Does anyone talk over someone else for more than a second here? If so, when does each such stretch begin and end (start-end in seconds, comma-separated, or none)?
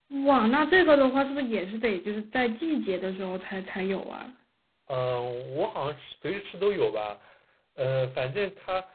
none